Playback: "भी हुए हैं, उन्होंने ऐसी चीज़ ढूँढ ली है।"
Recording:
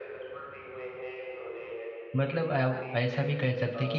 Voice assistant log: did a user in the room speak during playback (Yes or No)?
Yes